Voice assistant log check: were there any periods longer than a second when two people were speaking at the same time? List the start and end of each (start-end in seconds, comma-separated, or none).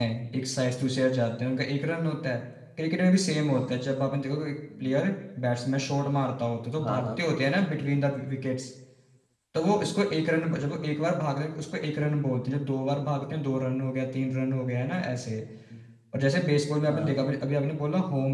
none